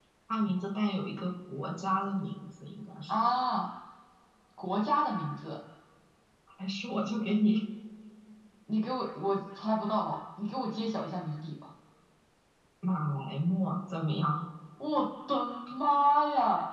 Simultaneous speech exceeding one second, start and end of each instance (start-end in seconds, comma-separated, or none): none